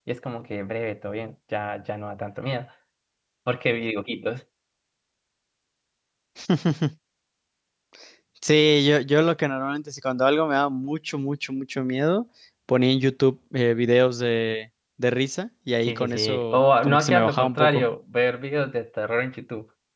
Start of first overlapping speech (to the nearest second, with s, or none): 16 s